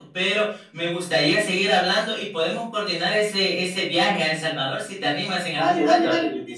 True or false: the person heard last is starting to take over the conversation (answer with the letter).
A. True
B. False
A